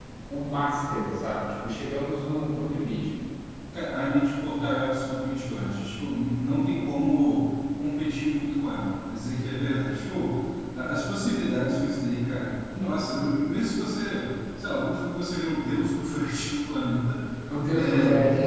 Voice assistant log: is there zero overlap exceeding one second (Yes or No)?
Yes